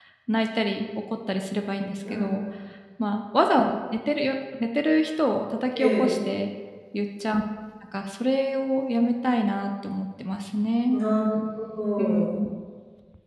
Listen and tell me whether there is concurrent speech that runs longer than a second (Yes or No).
No